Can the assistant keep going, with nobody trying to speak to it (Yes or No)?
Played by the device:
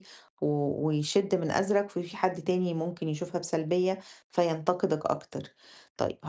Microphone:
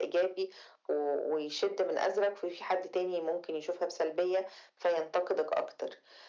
Yes